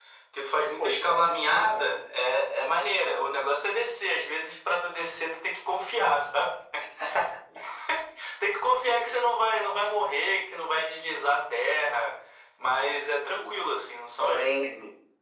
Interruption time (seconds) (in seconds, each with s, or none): 0.8 s